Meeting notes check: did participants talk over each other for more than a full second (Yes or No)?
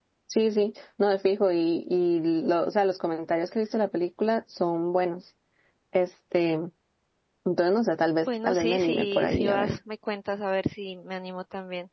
Yes